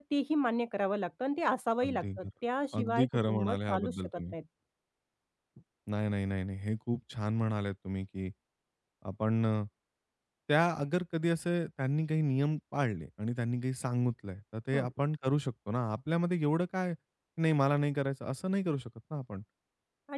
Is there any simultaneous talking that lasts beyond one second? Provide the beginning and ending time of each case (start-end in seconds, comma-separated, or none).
2.8-4.3